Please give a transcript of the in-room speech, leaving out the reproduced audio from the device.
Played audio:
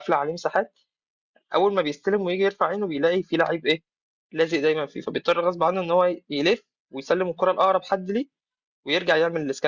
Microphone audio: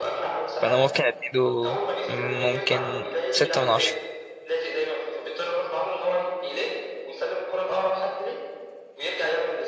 فأنا ممكن أديله مم، ممكن ستة من عشرة

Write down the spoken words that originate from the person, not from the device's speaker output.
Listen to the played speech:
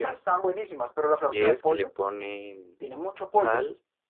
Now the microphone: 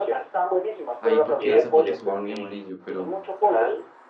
ahí porque esa foto se ve muy amarillo, pero

